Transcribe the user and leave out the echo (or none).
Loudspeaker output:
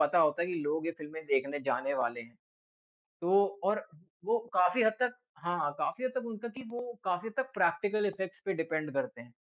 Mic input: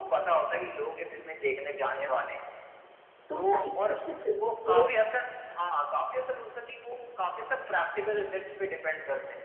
तो साइंस फ़िक्शन फ़िल्मों के